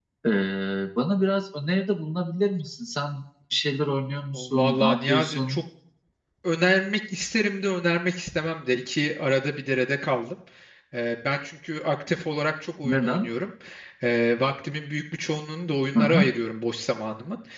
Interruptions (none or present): present